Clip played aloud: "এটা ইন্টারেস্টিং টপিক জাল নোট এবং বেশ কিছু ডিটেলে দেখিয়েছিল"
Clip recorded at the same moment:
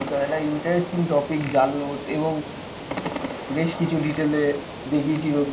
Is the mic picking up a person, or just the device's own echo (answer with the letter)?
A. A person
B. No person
B